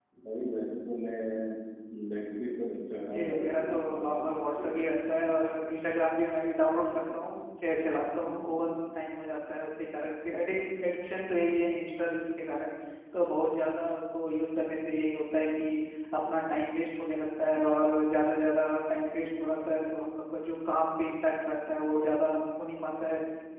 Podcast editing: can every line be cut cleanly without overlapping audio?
No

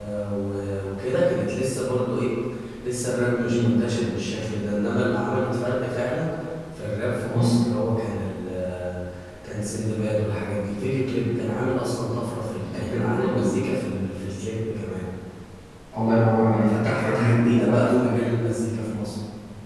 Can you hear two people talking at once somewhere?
Yes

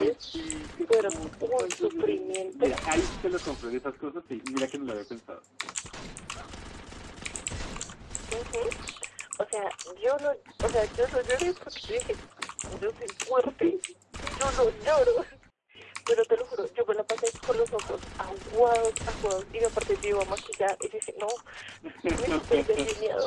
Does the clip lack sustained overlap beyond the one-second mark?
No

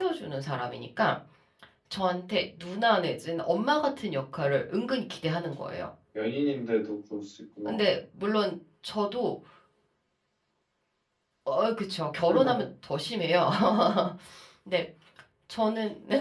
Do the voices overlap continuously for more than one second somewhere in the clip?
No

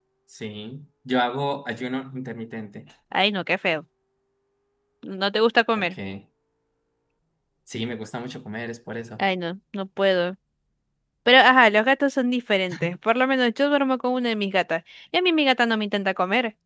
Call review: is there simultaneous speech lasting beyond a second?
No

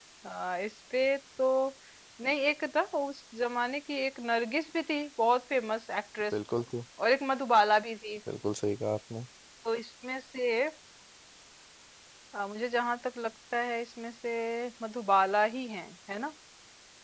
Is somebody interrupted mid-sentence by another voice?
No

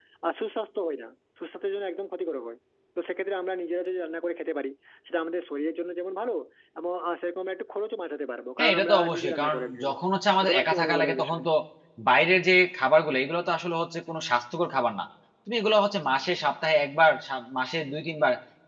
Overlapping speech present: Yes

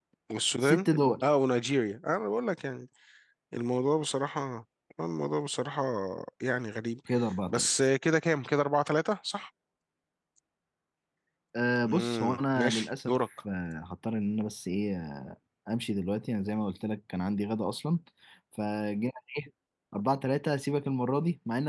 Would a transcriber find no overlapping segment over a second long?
No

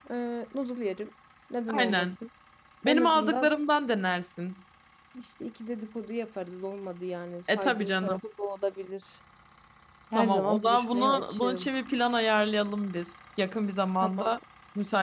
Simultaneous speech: Yes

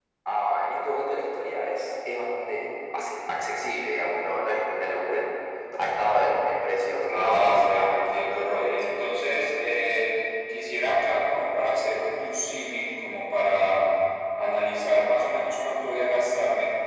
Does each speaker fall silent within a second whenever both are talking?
No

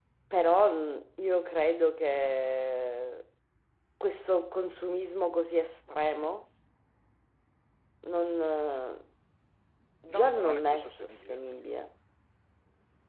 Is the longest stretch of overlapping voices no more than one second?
No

